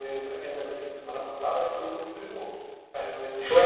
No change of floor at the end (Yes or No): No